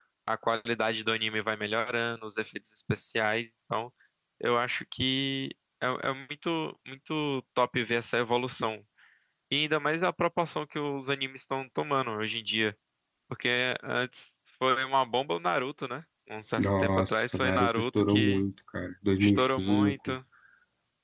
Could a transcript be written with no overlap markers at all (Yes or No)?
No